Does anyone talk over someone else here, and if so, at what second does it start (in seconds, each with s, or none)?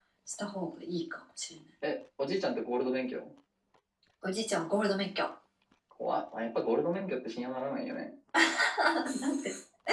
none